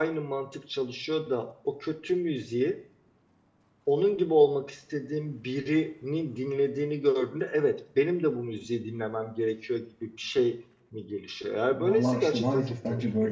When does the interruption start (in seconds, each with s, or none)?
11.7 s